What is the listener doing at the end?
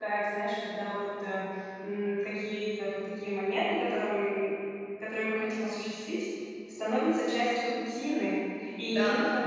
listening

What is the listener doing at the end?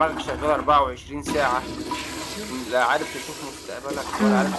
taking over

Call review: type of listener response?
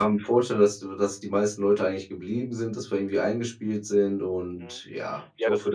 taking over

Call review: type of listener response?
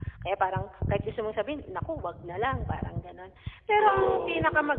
listening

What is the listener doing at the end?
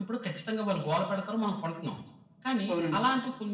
listening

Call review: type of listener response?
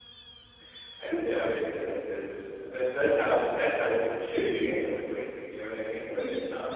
taking over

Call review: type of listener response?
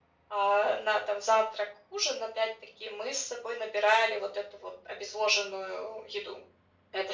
taking over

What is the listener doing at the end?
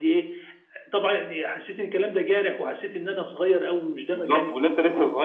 taking over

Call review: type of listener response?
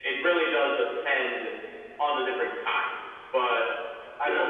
listening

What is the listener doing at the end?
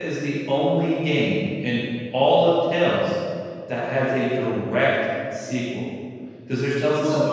listening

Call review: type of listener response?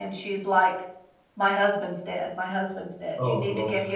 listening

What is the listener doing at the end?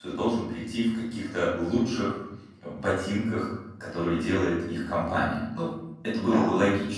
taking over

